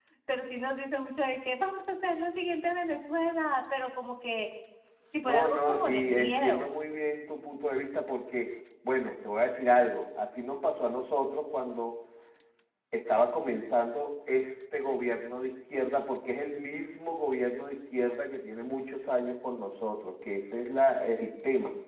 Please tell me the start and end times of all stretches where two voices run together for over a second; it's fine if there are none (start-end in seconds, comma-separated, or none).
5.2-6.7